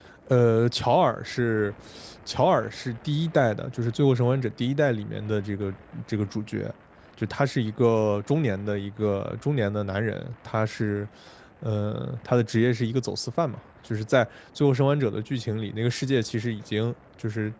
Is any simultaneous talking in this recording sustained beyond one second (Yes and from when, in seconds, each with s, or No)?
No